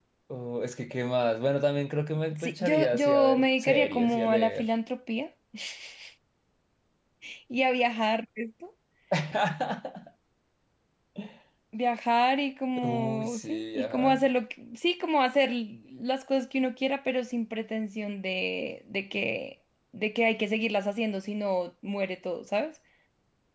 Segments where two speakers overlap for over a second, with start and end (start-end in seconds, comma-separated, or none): 2.4-4.7, 12.8-14.2